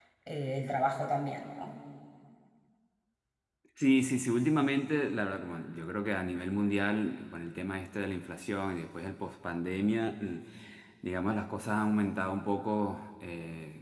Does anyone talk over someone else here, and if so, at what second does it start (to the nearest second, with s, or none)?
none